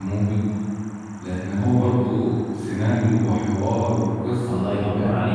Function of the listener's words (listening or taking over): taking over